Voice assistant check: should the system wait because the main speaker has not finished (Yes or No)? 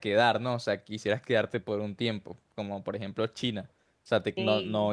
Yes